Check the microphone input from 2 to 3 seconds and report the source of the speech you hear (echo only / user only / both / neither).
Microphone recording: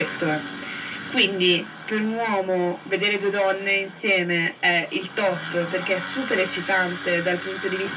echo only